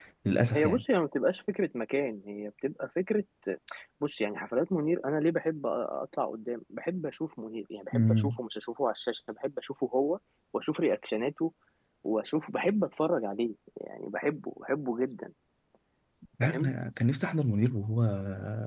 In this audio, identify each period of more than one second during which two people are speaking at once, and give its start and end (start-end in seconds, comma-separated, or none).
none